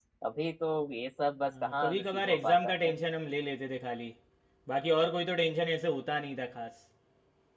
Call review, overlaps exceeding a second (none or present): present